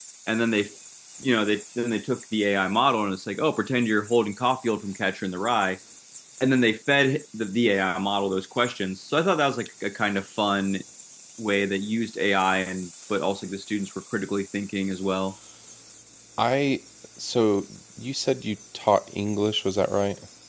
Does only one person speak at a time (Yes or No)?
Yes